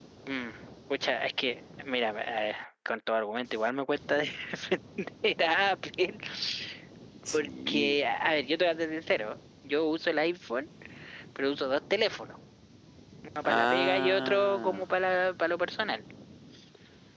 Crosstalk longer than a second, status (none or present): present